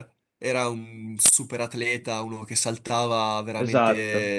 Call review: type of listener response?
listening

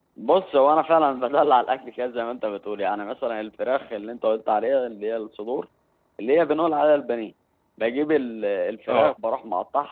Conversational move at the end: listening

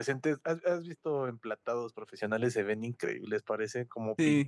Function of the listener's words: taking over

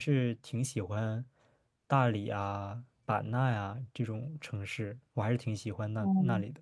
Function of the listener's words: taking over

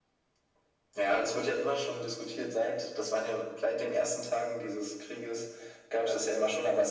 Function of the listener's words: listening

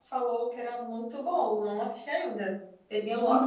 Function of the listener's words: taking over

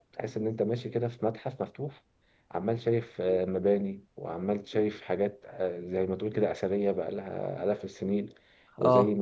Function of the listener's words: listening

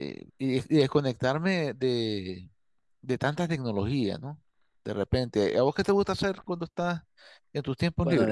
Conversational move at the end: taking over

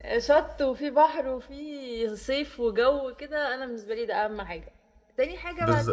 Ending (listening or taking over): taking over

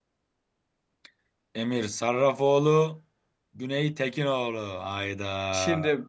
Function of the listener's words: taking over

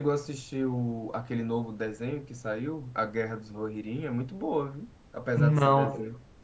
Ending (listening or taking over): taking over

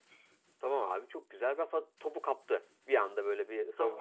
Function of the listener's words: taking over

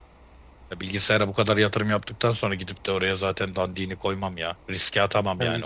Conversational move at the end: taking over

